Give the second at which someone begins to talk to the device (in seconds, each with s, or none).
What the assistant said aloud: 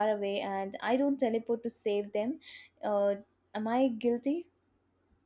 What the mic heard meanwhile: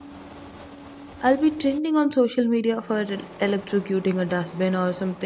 1.2 s